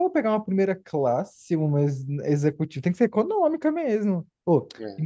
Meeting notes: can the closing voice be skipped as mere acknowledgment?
Yes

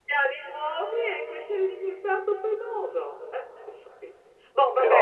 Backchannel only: Yes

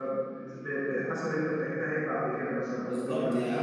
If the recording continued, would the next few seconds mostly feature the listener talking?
Yes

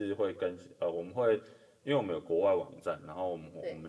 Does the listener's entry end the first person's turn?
No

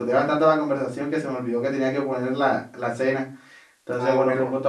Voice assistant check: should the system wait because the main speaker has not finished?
No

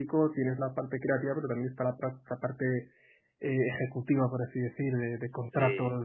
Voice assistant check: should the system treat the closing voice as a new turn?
No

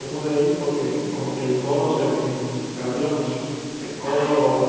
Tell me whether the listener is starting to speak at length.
No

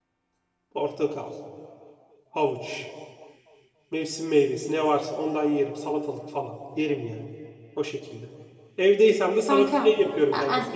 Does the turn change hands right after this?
Yes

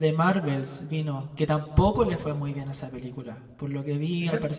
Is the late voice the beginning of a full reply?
No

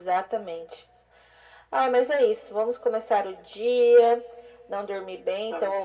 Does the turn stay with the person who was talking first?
Yes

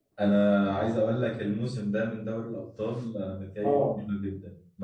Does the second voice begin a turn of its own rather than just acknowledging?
No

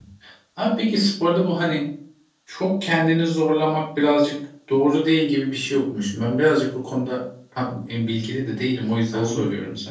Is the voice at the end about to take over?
Yes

